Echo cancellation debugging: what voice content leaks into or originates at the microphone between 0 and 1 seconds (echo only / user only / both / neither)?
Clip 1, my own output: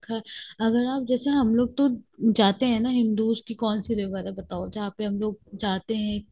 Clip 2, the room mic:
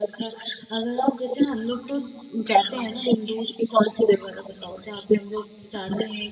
echo only